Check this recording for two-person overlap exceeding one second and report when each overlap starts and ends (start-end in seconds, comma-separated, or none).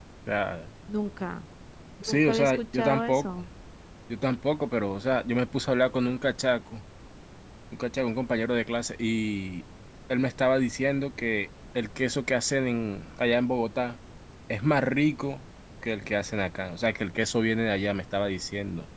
2.1-3.3